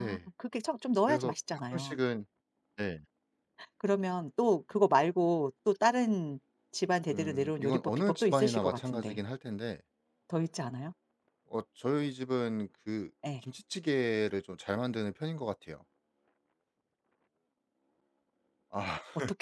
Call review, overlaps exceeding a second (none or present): present